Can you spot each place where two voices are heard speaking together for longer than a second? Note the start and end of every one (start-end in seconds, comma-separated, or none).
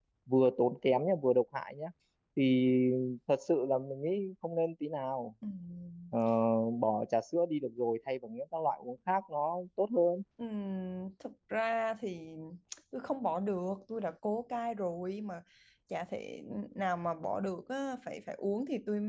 none